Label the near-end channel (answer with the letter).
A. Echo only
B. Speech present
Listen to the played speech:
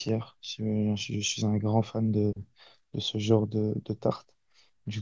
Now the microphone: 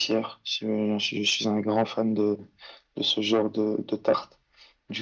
A